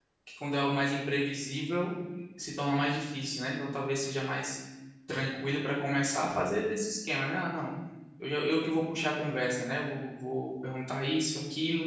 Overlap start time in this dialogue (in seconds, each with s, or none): none